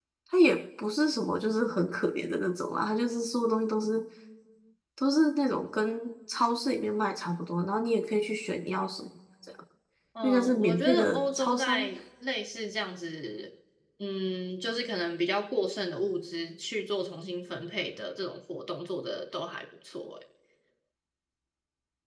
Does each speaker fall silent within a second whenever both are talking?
No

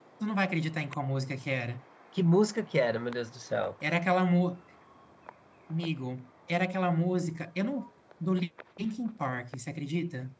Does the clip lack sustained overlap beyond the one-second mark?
Yes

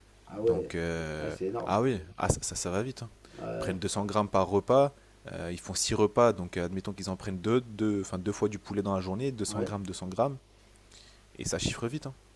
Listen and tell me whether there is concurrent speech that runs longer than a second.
No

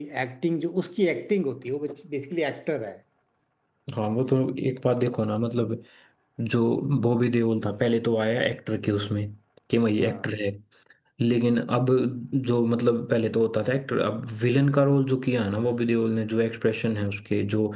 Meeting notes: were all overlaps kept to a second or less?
Yes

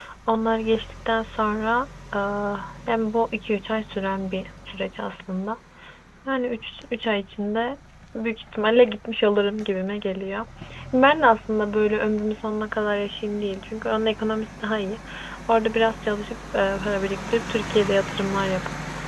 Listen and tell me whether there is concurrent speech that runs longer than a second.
No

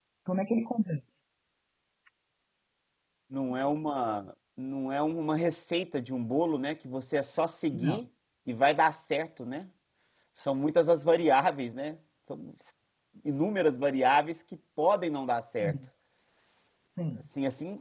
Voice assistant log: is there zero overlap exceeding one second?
Yes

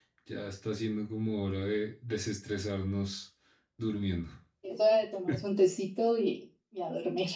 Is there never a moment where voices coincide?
Yes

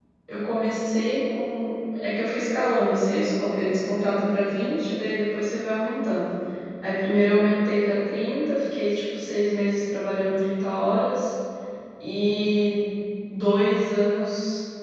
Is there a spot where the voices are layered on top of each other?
No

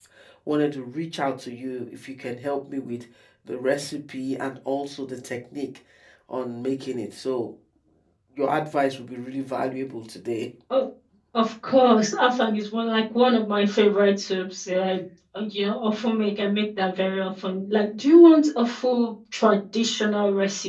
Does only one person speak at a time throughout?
Yes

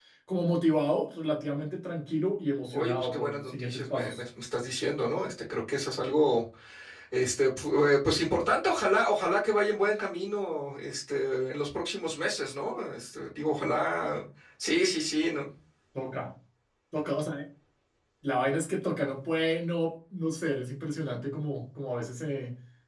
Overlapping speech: Yes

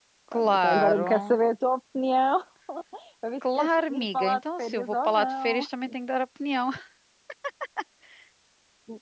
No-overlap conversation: No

